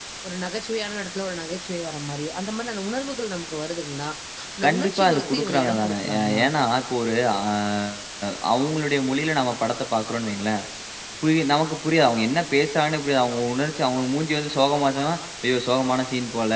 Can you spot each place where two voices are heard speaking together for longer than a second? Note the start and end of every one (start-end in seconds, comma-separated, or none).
4.6-6.4